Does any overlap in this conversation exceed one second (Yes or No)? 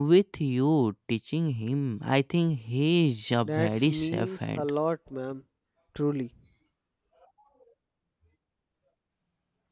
Yes